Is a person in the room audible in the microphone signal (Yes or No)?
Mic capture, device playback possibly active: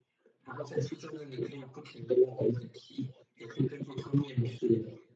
No